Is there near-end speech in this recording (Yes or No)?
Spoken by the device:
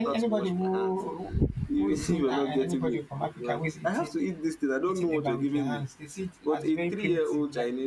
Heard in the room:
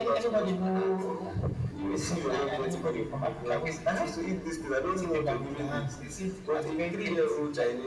No